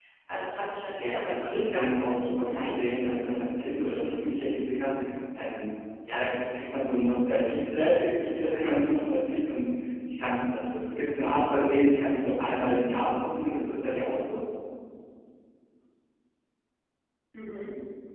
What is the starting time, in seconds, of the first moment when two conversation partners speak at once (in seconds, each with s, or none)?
0.9 s